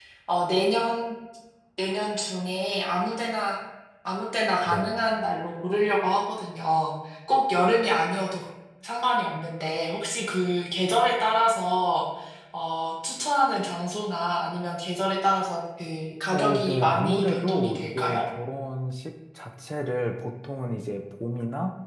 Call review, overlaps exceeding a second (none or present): present